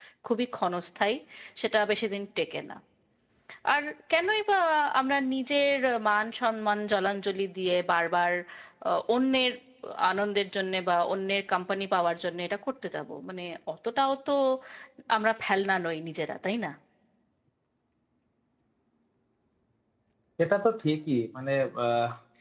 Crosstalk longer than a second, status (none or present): none